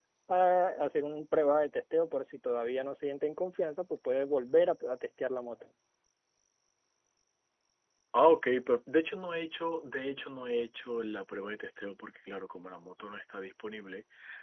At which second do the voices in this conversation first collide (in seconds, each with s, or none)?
none